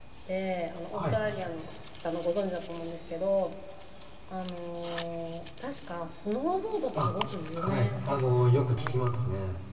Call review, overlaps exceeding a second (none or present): present